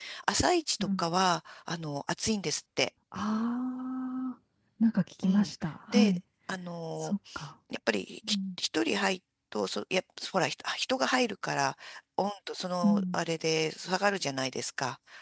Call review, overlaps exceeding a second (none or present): none